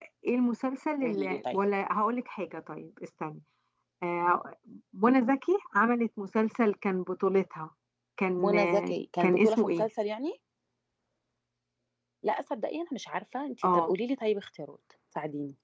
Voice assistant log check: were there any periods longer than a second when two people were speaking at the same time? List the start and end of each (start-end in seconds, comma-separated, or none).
8.4-9.9